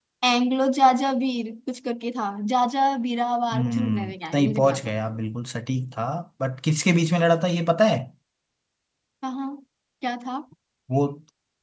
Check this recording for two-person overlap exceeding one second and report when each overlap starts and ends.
3.5-4.9

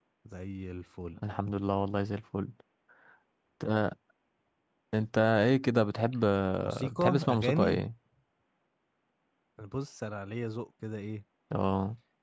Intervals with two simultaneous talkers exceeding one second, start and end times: 6.6-7.8

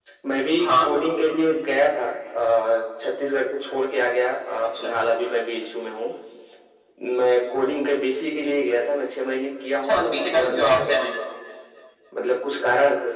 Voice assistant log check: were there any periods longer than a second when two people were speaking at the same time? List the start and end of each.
9.7-11.0

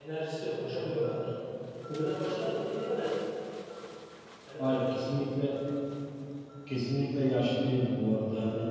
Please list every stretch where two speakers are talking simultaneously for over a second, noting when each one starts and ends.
none

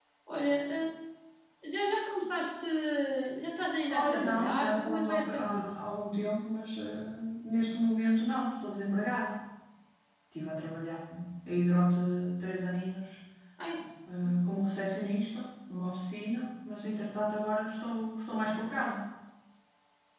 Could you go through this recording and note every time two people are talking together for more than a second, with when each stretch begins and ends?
3.9-5.8

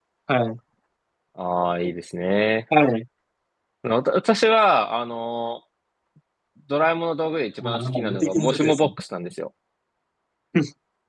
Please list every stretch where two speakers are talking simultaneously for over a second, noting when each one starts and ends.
7.6-8.9

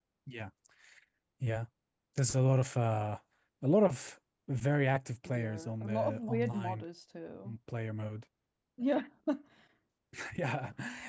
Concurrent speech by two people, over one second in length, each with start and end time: 5.2-6.8

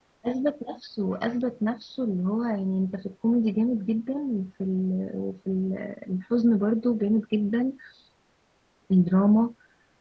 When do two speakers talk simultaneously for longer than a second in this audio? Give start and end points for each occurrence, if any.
none

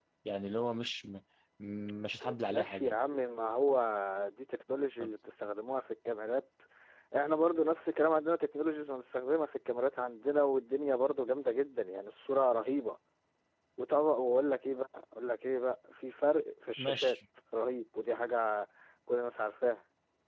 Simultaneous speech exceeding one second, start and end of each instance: none

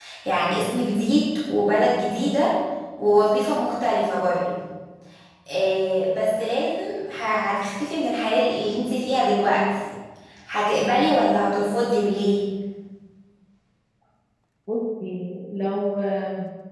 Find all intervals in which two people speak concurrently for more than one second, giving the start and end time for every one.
none

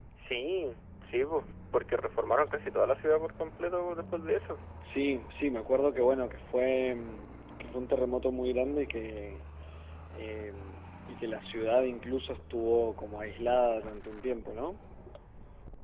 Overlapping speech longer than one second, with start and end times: none

